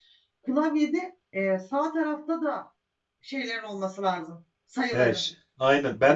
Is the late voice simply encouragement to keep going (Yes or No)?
No